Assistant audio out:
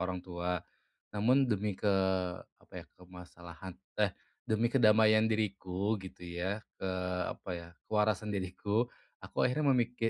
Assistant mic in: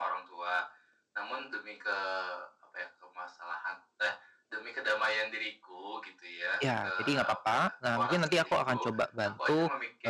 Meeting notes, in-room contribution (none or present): present